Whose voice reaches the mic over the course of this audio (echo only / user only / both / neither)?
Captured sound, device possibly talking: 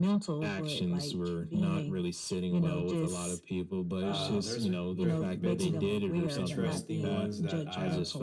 both